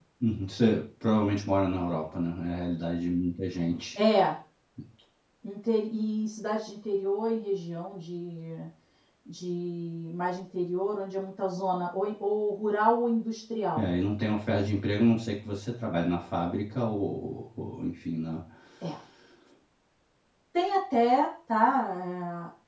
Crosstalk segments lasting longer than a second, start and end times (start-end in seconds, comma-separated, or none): none